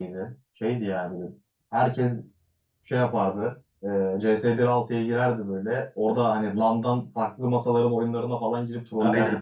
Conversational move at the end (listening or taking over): taking over